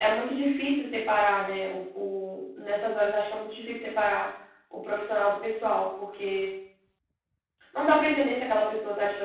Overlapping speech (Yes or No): No